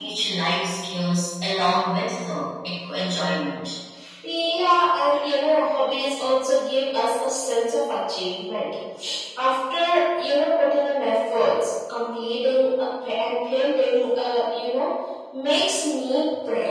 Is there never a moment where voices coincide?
Yes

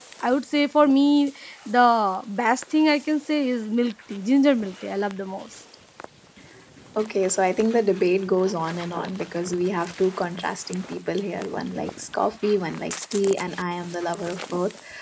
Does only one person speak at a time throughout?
Yes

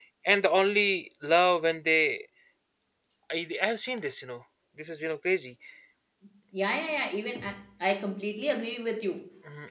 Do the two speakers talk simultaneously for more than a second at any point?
No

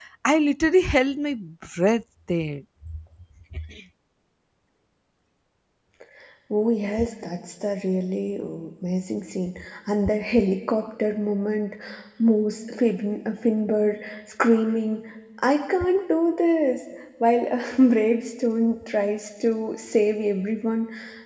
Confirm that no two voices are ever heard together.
Yes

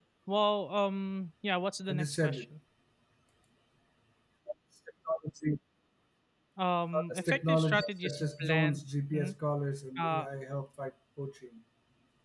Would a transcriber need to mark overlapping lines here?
Yes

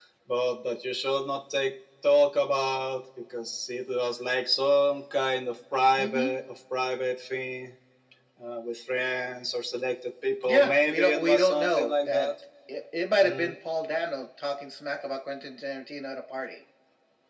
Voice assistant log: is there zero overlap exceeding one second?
No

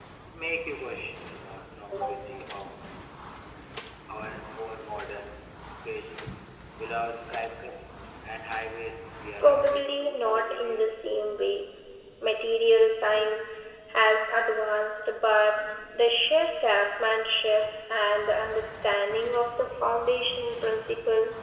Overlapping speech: Yes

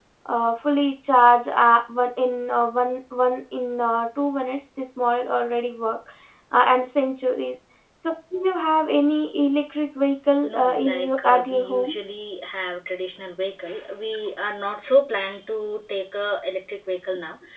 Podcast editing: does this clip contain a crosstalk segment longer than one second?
Yes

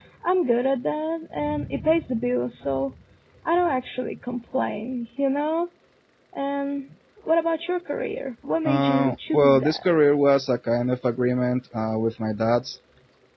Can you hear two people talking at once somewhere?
Yes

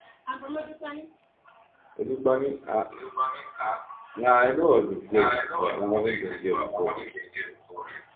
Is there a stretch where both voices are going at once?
Yes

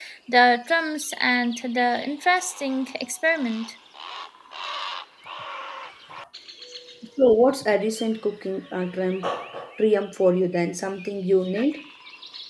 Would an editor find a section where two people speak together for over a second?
No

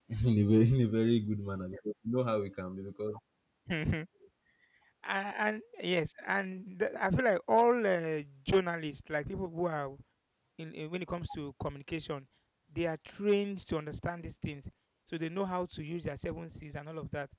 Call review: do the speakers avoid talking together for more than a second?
Yes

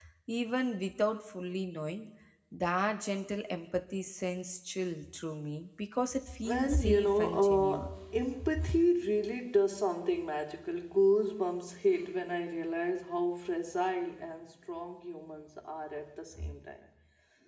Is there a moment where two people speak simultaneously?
Yes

